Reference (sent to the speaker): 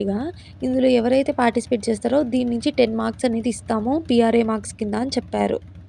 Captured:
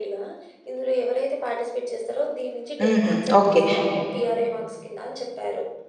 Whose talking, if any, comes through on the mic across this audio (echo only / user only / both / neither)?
both